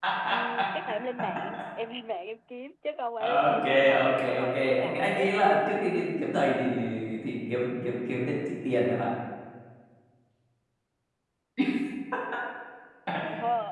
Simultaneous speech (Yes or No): Yes